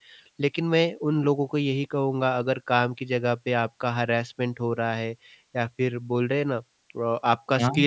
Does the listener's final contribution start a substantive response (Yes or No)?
No